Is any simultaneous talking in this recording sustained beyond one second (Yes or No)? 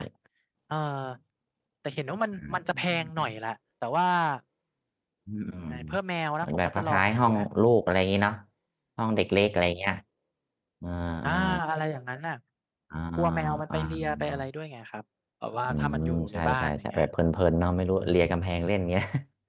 Yes